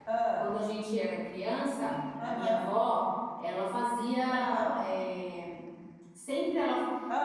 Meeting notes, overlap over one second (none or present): none